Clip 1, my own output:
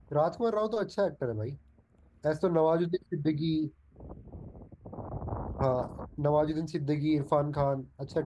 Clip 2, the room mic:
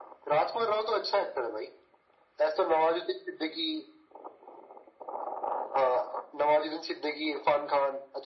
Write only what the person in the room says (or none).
हाँ